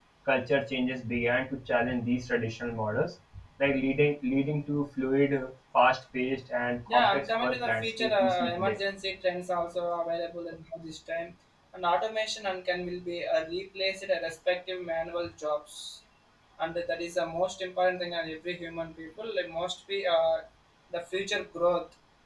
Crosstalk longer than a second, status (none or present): present